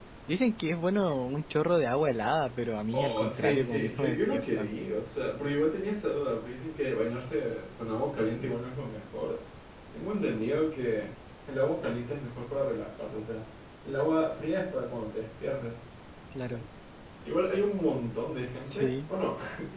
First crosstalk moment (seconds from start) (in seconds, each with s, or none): 2.9 s